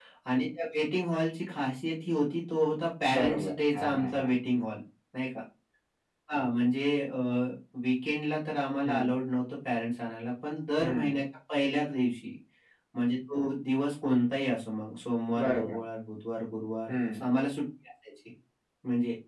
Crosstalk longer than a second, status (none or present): present